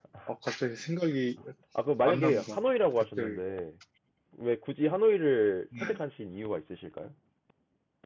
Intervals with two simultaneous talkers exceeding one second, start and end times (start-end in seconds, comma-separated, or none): none